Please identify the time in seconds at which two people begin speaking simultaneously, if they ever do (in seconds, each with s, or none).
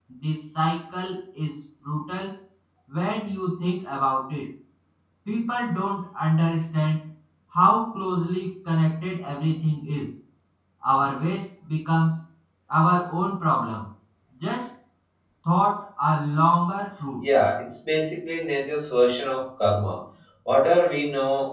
none